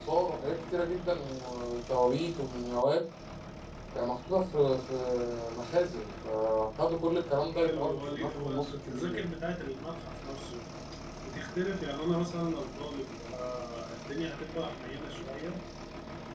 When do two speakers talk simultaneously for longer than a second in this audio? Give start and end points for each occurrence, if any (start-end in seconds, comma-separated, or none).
7.5-9.3